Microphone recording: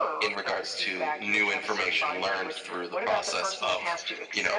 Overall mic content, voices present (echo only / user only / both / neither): echo only